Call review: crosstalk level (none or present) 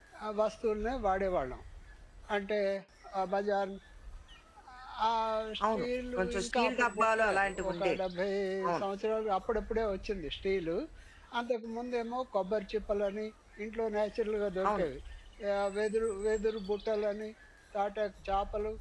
present